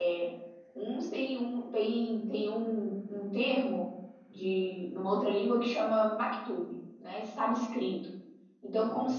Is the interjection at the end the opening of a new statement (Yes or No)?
No